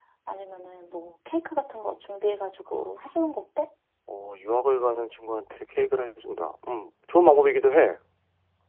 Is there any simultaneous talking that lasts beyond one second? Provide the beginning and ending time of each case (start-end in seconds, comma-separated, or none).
none